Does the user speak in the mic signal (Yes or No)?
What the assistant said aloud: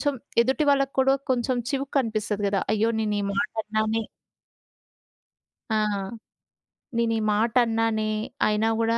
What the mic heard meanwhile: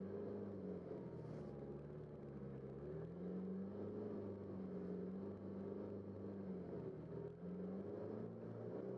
No